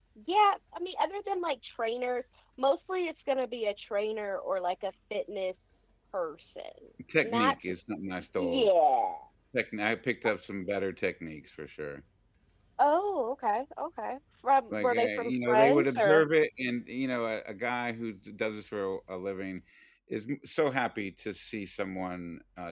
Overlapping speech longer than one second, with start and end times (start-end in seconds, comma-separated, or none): 14.7-16.2